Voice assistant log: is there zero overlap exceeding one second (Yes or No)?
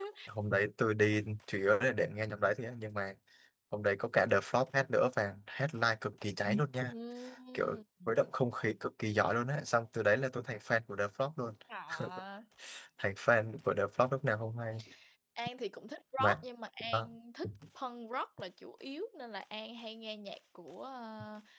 Yes